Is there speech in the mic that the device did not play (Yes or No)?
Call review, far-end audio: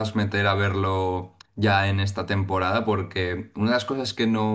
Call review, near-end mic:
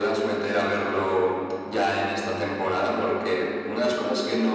No